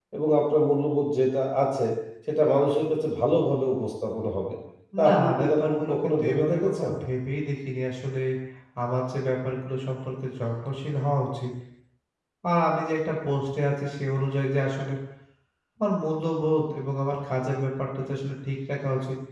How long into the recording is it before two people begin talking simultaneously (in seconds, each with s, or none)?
5.1 s